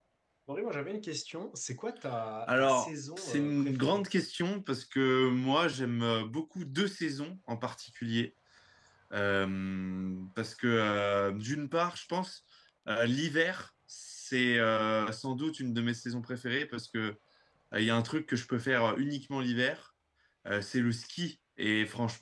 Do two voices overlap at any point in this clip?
Yes, from 2.5 s

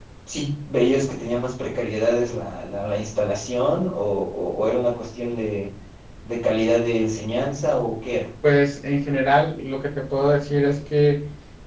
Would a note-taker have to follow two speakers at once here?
No

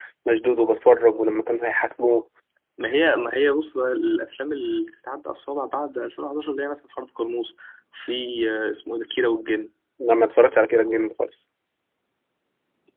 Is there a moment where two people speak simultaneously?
No

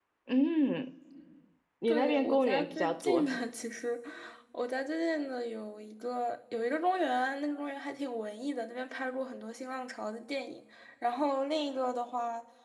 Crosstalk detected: Yes, from 1.9 s

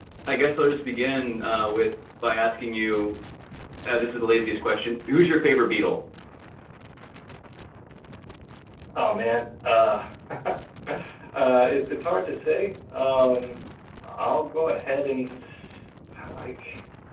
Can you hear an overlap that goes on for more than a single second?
No

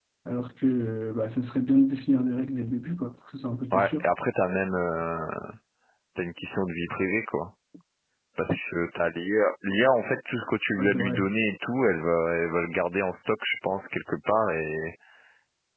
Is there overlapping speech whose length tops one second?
No

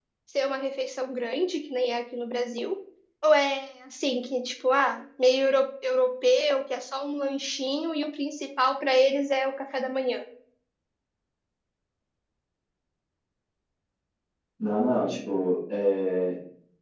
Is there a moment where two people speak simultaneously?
No

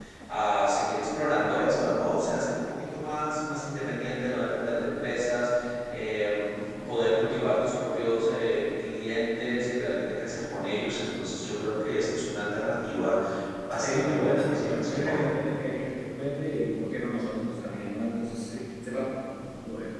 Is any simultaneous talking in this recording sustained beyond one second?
Yes, from 13.8 s

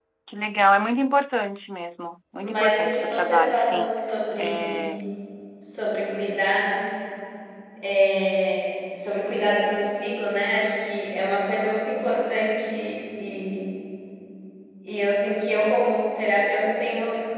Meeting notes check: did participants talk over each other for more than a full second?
Yes, from 2.4 s

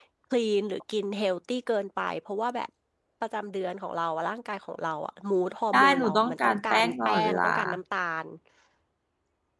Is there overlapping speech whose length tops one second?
Yes, from 5.7 s

